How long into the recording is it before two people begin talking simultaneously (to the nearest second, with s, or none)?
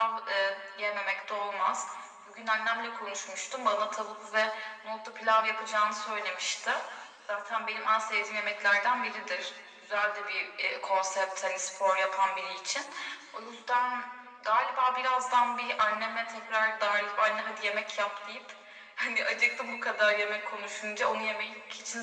none